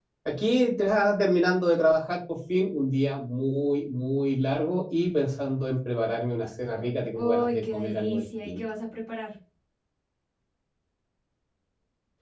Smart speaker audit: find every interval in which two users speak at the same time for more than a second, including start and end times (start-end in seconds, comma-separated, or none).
7.2-8.6